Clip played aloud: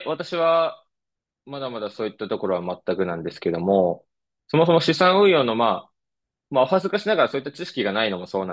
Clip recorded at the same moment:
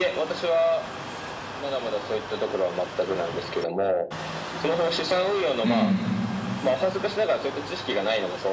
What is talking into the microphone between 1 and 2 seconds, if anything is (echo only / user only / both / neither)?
echo only